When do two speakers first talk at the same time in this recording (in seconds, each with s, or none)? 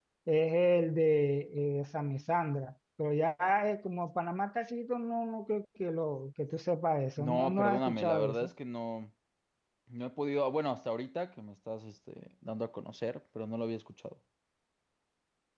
7.2 s